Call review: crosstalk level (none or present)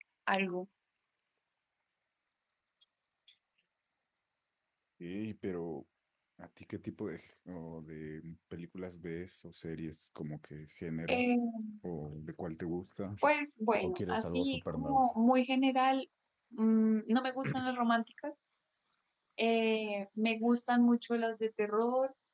present